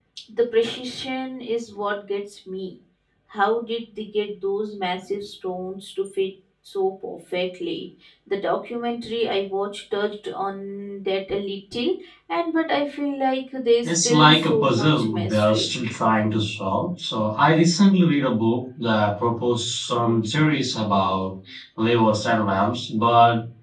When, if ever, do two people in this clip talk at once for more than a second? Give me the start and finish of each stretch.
13.8-15.8

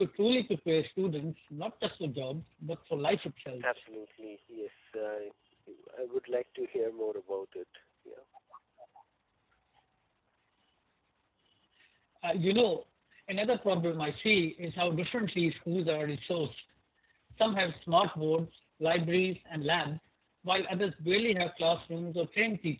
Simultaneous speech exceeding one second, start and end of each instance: none

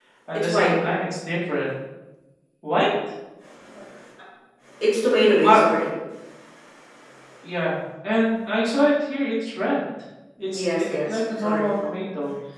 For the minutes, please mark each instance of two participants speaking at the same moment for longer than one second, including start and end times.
10.5-11.7

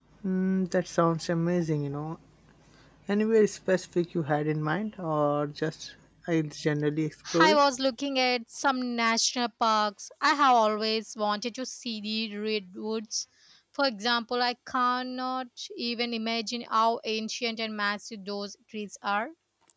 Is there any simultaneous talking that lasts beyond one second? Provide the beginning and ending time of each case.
none

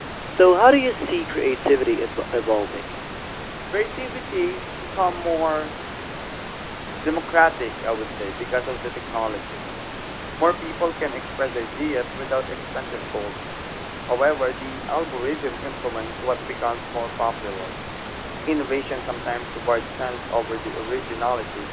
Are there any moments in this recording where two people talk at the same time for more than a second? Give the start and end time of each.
none

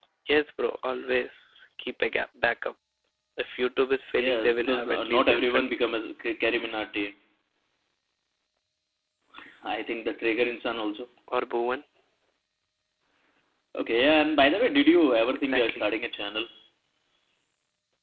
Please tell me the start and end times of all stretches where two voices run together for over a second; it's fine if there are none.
4.2-6.0

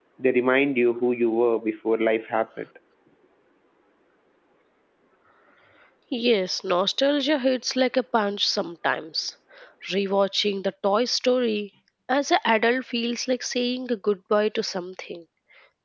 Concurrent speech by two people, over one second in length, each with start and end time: none

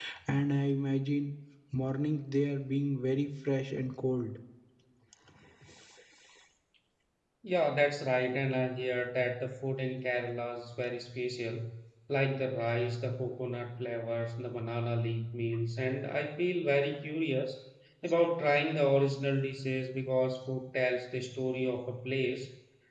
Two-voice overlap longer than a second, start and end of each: none

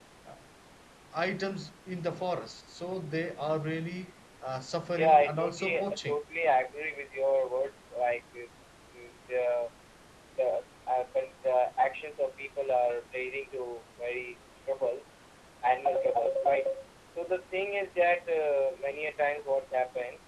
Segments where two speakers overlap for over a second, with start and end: 4.9-6.2

